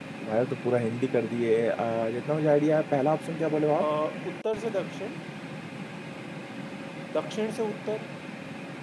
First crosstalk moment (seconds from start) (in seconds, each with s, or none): none